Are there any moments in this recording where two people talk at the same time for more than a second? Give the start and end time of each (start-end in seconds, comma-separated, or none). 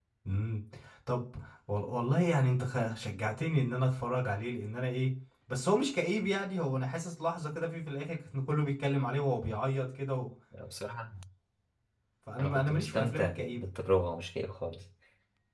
12.4-13.7